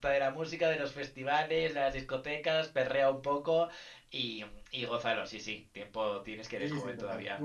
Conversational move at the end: taking over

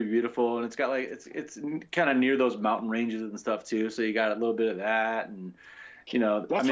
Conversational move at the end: taking over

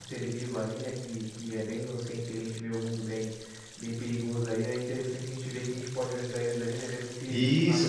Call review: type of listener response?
taking over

